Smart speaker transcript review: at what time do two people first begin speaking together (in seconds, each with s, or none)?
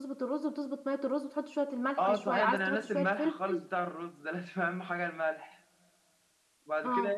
2.0 s